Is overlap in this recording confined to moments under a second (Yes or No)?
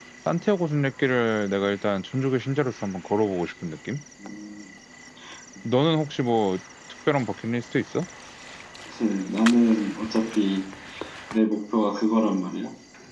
Yes